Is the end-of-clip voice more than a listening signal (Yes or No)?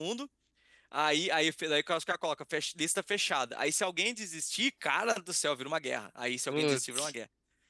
No